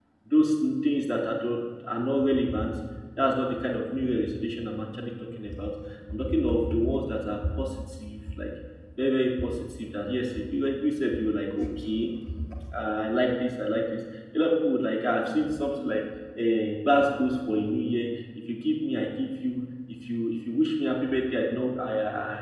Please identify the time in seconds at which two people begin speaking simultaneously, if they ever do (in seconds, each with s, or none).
none